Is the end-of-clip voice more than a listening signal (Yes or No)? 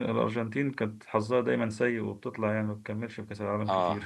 Yes